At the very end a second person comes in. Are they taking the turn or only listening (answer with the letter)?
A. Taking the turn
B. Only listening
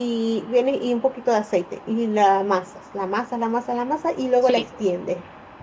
B